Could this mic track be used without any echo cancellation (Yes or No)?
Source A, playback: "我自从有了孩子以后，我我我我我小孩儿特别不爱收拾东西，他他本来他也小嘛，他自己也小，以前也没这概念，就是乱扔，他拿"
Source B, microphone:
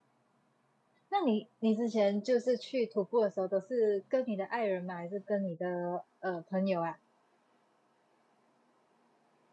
Yes